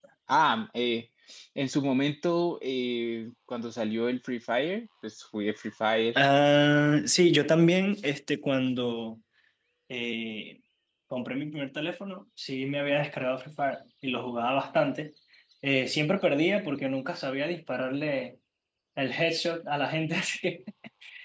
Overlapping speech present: No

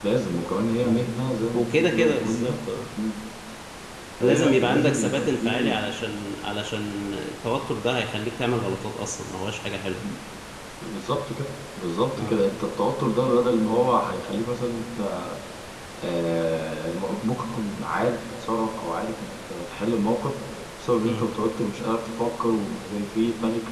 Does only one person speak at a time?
No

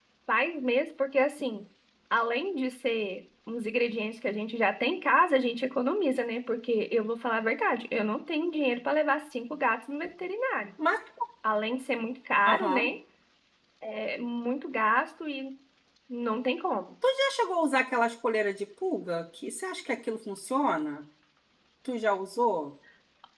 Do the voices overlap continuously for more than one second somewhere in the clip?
No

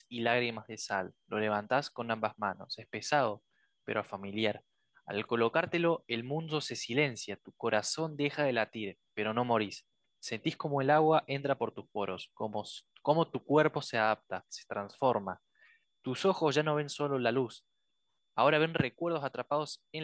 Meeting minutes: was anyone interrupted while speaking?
No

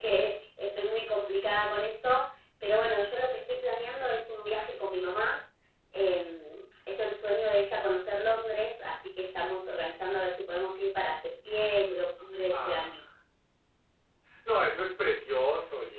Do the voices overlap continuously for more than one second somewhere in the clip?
No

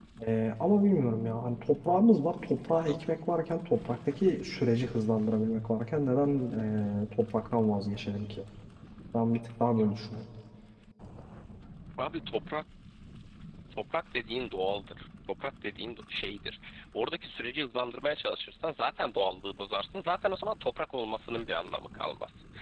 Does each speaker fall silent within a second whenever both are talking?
Yes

